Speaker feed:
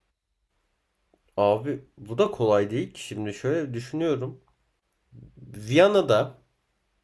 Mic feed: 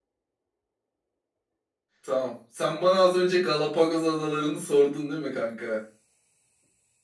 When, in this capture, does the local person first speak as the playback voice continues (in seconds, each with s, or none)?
2.0 s